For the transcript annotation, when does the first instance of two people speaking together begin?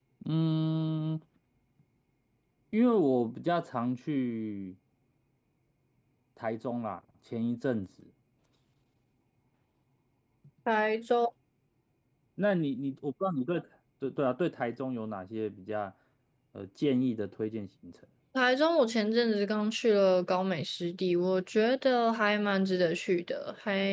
none

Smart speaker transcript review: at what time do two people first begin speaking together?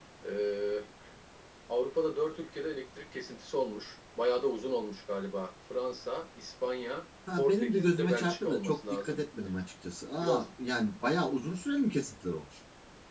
7.4 s

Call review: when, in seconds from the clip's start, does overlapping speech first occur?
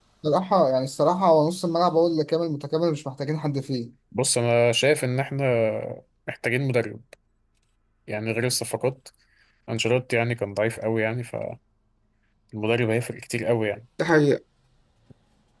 none

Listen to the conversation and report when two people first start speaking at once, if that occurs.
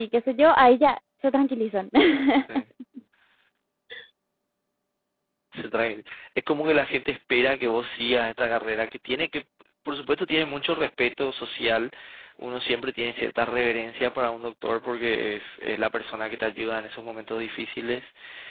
none

